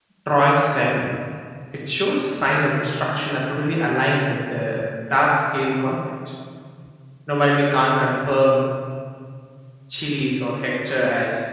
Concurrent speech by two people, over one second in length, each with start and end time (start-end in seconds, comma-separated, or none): none